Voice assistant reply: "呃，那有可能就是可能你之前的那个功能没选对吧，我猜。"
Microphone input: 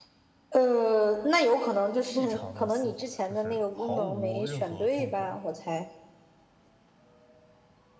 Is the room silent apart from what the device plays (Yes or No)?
No